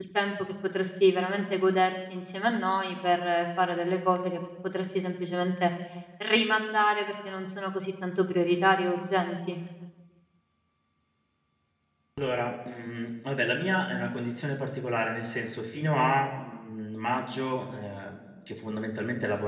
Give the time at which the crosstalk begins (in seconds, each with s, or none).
none